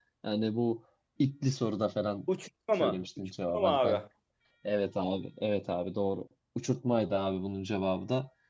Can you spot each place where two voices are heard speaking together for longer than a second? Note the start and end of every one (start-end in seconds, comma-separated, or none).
2.8-4.0